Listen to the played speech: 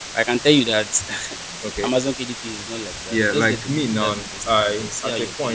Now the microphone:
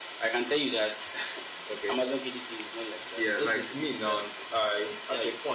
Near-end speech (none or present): none